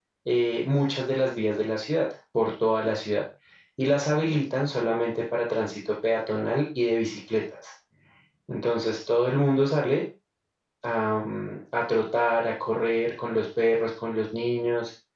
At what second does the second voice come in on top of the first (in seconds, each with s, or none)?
none